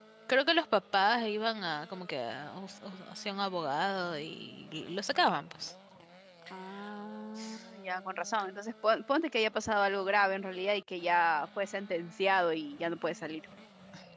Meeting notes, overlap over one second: none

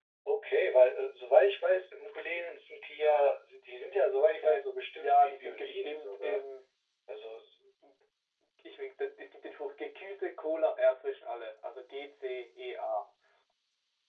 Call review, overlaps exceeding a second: present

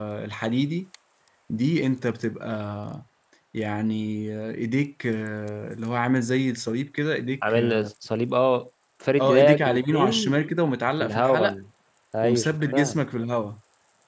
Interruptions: present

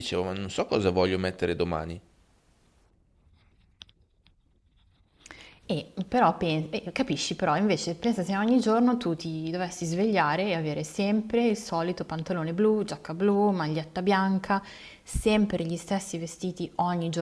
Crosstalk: none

